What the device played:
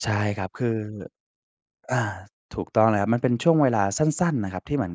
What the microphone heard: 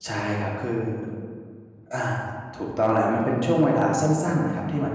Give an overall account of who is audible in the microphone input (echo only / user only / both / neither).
echo only